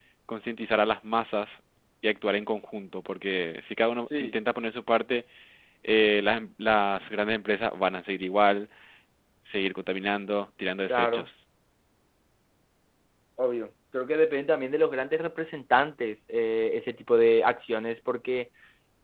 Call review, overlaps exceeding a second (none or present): none